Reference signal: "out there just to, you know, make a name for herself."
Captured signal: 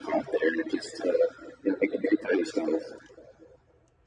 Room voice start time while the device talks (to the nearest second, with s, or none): none